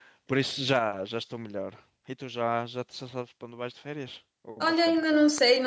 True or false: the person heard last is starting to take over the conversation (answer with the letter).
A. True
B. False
A